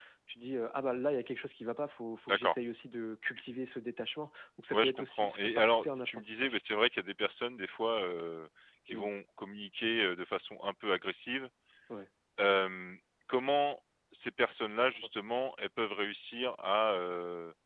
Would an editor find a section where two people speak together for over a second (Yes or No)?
Yes